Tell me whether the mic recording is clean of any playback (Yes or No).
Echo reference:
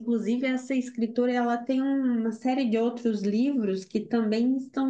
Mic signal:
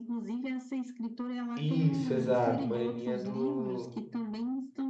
No